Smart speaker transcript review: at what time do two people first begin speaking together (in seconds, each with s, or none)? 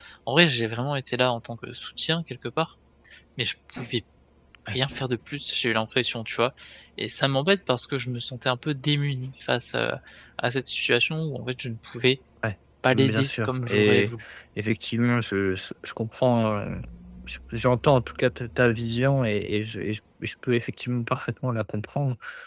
12.9 s